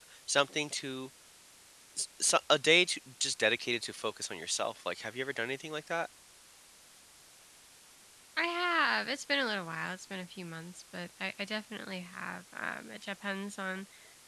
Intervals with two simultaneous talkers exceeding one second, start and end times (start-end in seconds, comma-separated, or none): none